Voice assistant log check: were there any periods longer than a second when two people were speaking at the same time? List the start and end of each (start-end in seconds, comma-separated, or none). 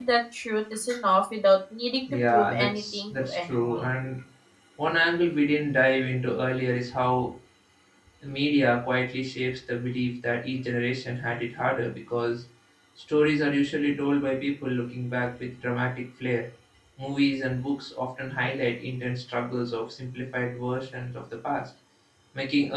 2.3-3.9